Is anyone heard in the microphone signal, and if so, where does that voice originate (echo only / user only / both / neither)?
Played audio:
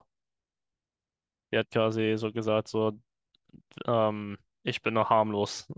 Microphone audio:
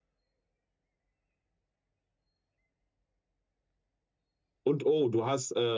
user only